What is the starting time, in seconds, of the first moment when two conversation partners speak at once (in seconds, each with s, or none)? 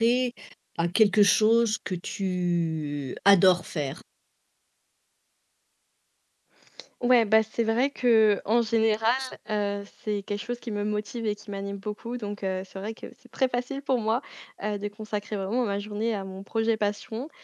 none